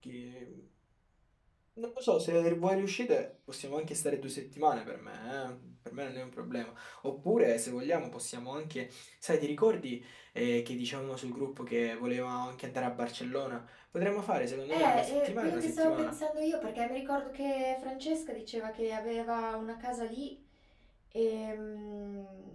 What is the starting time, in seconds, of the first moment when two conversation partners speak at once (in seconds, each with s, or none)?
14.7 s